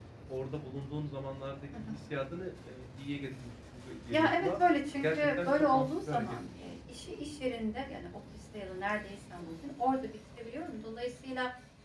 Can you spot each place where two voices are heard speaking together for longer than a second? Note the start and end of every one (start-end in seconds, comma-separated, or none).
5.0-6.5